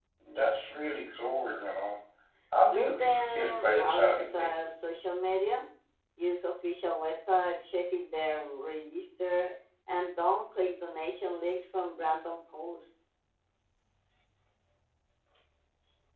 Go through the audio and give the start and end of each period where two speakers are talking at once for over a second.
2.7-4.5

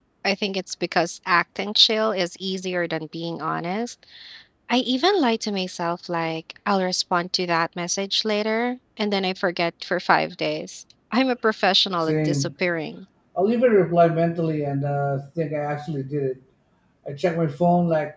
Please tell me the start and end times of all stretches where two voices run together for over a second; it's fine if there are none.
none

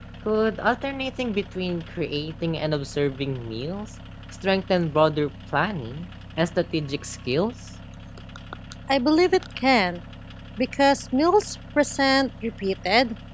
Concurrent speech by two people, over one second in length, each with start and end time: none

